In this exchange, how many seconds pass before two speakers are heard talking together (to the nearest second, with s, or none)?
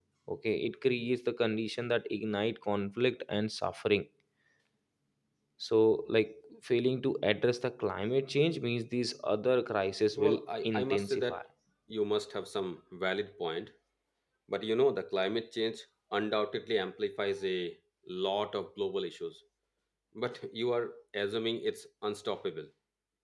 10 s